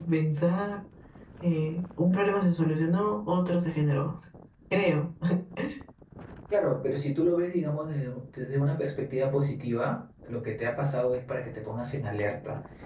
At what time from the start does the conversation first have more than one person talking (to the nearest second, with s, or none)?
none